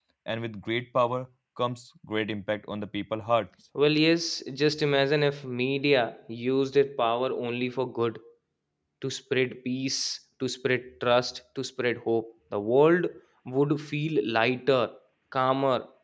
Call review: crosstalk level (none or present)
none